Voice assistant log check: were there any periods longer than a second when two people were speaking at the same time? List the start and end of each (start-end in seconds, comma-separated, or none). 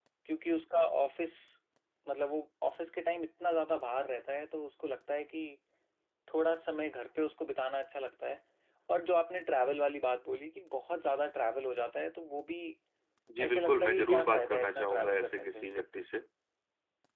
13.4-15.7